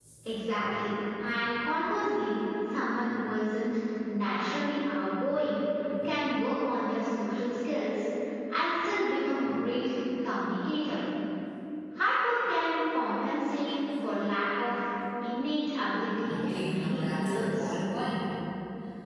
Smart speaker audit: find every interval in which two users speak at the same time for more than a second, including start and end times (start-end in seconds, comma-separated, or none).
16.3-17.7